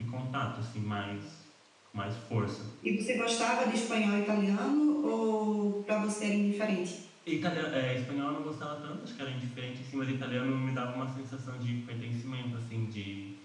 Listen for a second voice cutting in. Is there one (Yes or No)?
No